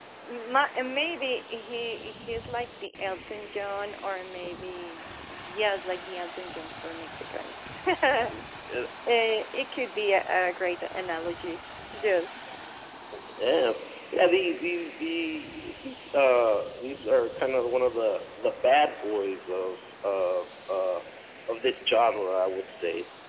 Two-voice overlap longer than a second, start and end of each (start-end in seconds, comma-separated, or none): none